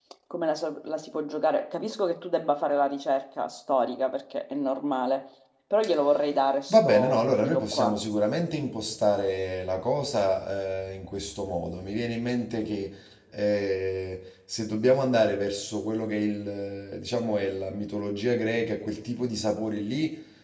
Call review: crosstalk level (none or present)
present